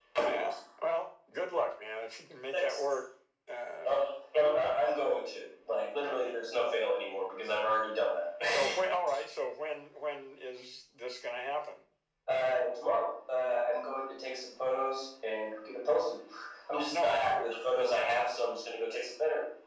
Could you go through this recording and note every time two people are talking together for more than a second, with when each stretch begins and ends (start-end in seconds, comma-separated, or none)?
none